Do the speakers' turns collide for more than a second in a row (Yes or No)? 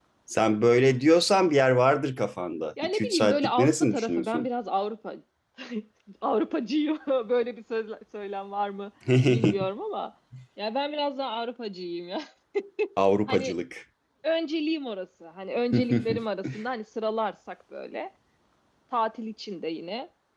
Yes